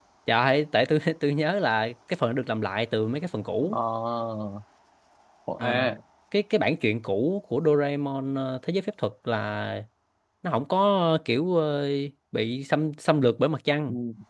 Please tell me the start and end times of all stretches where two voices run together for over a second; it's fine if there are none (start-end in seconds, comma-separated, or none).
none